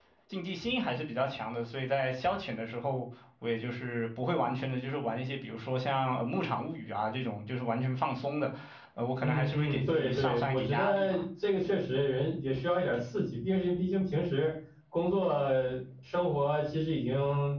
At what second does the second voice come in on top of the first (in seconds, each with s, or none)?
9.2 s